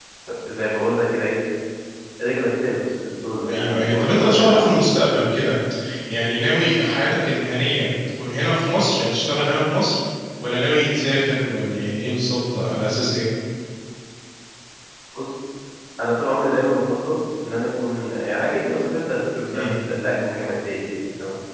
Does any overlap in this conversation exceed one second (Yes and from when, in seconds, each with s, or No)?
Yes, from 3.5 s